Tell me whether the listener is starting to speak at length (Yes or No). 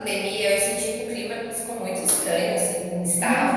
Yes